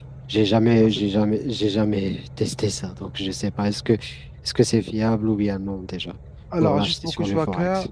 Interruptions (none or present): present